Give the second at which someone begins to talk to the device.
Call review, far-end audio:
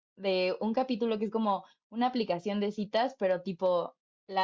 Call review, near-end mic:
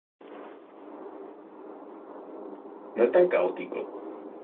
2.9 s

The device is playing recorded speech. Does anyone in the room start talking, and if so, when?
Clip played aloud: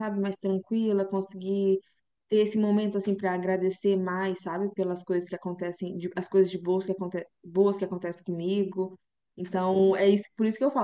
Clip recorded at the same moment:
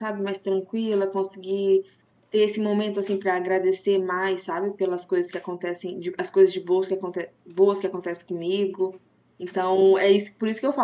none

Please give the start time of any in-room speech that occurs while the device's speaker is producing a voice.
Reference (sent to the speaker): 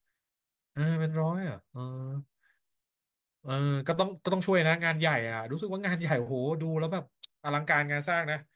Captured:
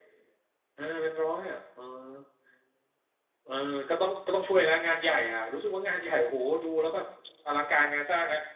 none

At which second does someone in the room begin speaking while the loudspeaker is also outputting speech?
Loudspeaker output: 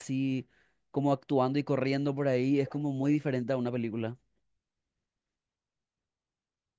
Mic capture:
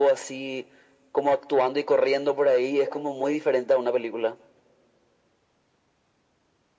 none

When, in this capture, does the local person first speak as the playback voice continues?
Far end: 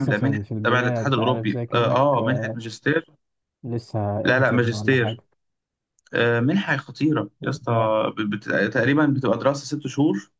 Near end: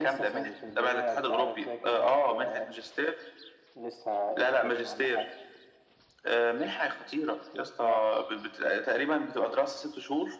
none

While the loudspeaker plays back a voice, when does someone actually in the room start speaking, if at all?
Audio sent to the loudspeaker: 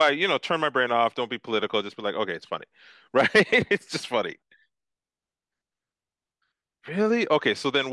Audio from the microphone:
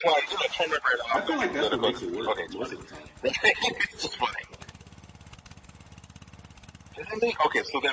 1.1 s

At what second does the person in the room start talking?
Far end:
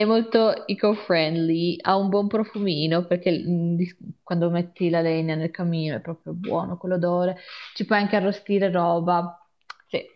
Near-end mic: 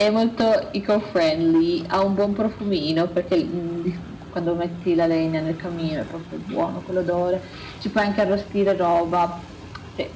none

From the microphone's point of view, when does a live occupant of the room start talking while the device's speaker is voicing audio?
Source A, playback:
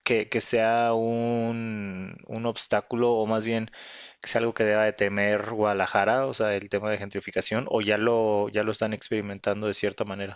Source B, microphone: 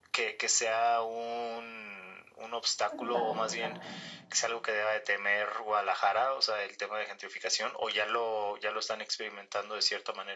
2.9 s

